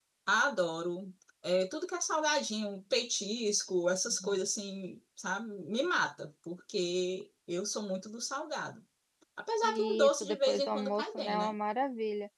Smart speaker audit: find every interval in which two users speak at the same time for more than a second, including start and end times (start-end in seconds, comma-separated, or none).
9.6-11.5